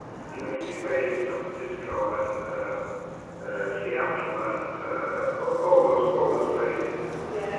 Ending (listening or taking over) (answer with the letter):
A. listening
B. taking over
A